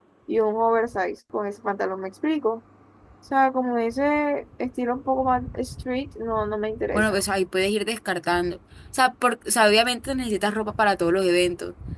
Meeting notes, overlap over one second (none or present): none